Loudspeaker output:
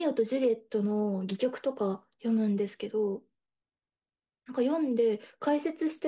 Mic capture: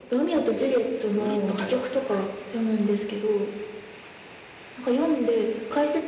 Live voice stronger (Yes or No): No